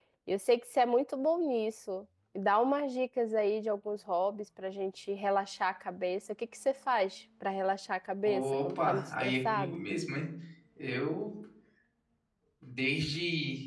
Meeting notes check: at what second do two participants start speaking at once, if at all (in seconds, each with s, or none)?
8.2 s